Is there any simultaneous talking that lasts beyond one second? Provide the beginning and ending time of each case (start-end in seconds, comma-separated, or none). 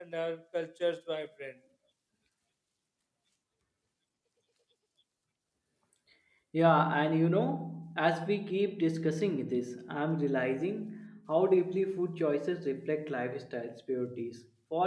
none